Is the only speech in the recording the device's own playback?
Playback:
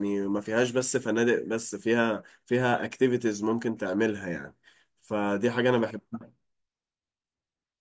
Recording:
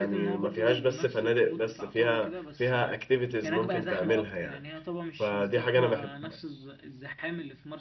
No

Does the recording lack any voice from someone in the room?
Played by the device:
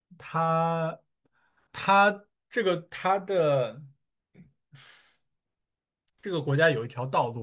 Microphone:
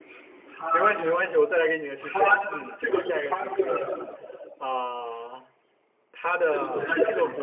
No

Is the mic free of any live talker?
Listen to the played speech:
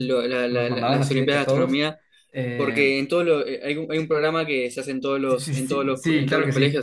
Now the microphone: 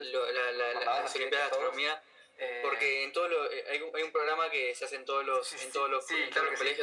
Yes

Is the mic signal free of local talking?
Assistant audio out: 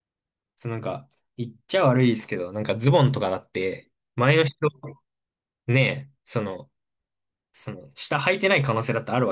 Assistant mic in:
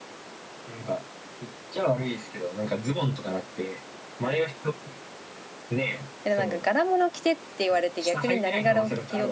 No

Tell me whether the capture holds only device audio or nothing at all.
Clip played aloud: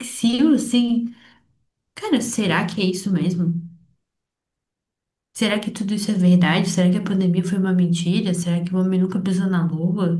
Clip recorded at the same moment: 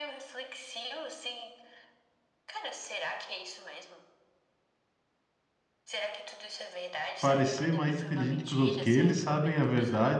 No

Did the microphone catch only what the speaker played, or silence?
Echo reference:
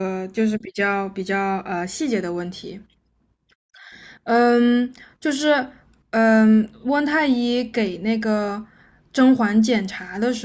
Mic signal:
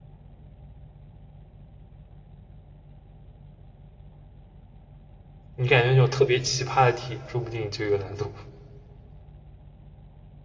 No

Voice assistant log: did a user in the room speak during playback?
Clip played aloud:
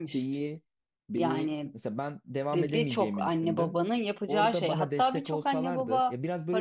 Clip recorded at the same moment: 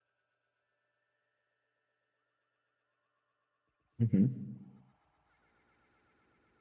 Yes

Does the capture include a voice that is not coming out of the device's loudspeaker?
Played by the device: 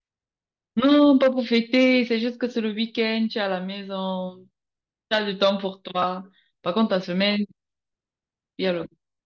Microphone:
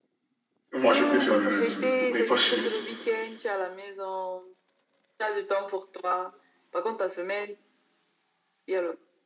Yes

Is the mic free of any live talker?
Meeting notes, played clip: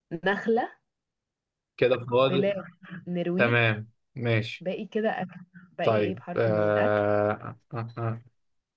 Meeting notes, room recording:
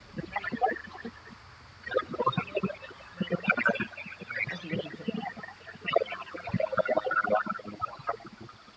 No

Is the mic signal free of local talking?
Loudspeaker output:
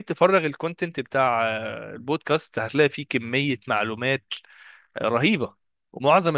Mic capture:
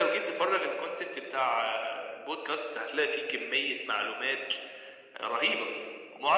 Yes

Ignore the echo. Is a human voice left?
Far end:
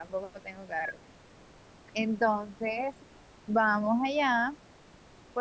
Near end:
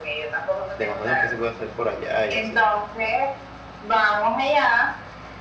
Yes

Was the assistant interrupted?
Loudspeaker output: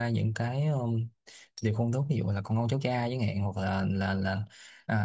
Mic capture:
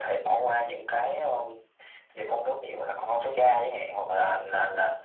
No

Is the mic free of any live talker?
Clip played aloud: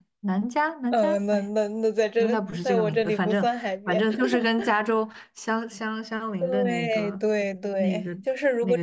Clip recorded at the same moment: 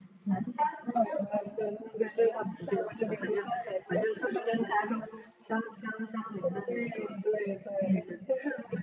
Yes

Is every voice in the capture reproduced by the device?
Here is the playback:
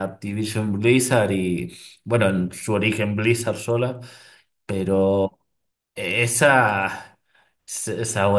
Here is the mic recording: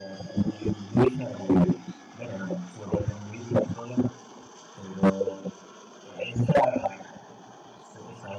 Yes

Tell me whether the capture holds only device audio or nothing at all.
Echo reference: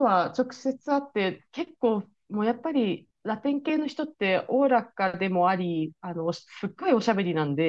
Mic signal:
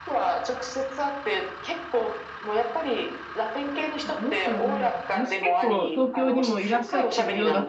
No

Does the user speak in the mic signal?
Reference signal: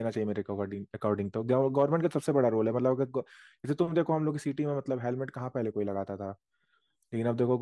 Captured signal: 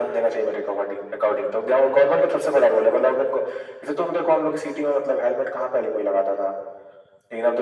No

